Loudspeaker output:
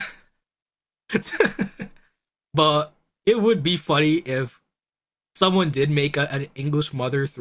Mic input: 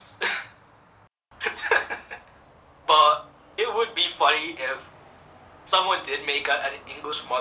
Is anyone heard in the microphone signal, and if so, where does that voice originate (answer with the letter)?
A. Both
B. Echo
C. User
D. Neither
B